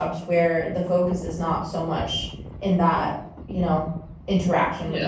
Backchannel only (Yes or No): No